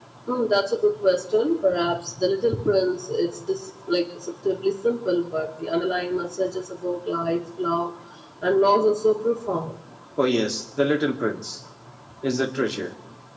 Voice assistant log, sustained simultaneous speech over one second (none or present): none